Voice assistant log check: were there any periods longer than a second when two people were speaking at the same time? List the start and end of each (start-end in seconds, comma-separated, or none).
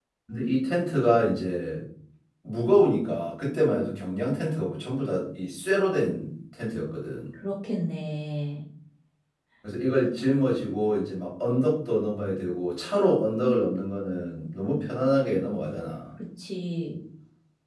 none